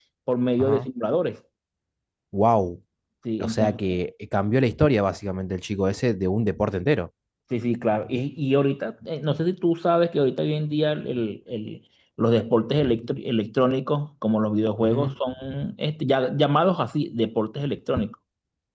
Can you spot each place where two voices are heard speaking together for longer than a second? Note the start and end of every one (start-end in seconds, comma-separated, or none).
none